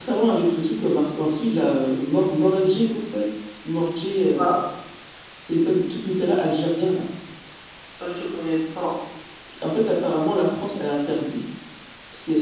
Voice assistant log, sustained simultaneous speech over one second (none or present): none